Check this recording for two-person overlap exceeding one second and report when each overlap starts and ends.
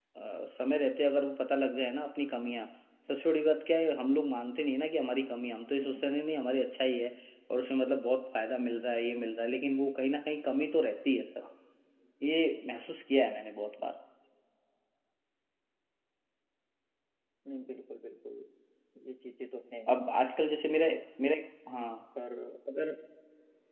none

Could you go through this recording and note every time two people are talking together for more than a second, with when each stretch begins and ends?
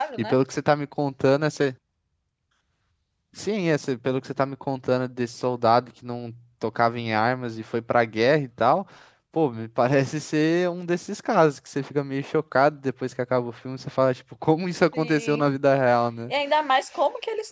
none

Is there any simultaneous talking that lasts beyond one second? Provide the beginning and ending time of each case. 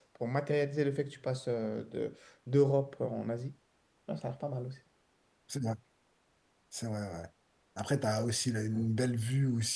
none

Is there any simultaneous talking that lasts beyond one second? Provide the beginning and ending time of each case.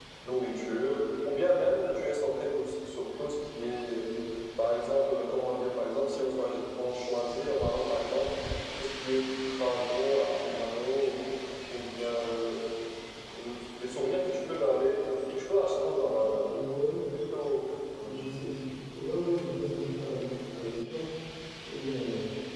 none

